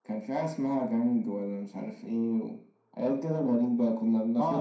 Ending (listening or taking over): taking over